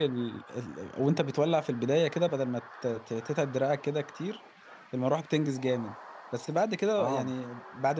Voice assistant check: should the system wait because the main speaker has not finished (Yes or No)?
Yes